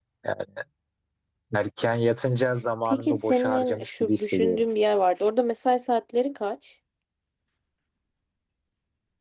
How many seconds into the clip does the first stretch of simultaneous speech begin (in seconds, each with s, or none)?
2.9 s